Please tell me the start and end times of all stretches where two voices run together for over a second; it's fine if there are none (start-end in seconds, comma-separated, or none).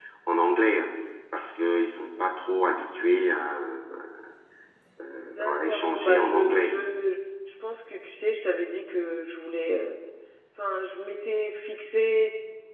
5.4-6.8